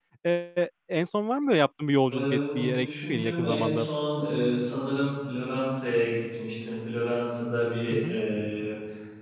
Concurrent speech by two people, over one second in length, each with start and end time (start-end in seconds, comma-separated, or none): 2.1-3.9